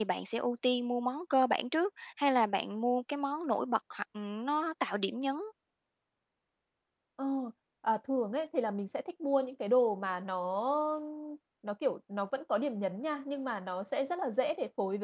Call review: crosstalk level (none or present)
none